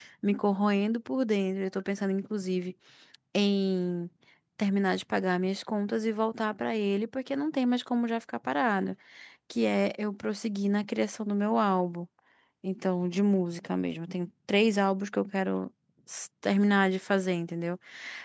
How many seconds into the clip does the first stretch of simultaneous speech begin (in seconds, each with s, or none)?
none